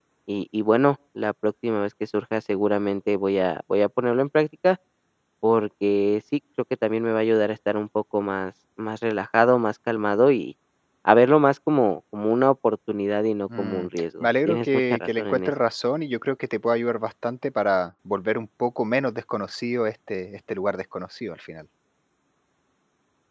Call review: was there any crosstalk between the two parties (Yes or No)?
Yes